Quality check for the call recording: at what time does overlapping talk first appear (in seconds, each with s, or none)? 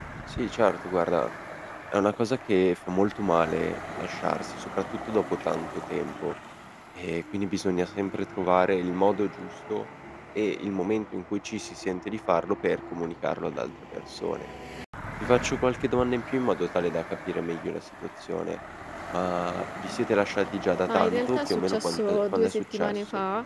20.9 s